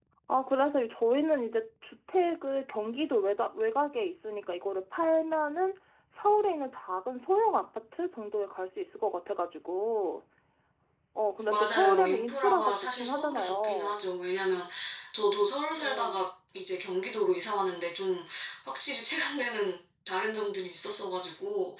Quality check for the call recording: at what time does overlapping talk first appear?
11 s

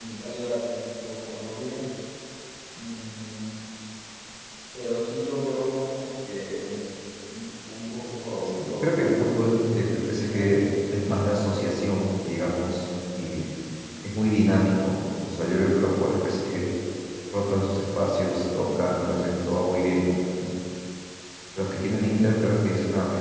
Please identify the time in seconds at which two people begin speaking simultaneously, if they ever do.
9 s

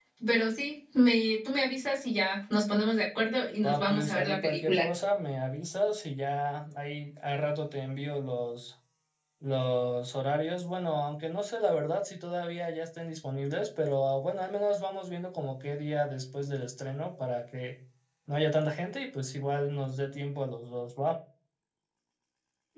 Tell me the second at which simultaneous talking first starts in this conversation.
4 s

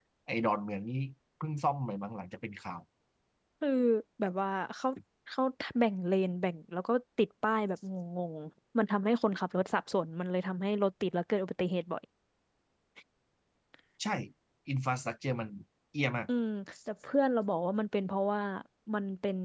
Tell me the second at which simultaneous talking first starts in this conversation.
none

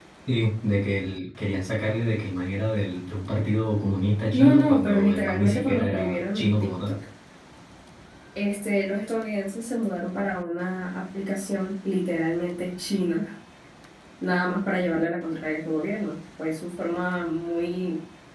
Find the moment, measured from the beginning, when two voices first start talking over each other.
4 s

